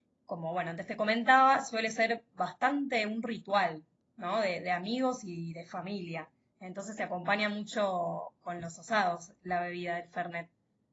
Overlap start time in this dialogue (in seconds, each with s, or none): none